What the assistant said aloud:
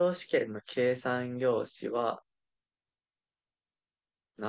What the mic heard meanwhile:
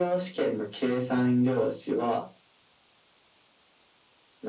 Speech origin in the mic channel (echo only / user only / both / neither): echo only